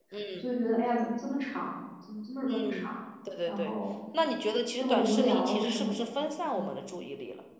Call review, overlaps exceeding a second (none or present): present